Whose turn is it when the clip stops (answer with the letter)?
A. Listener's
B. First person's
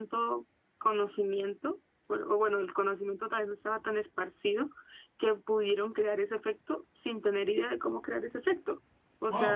A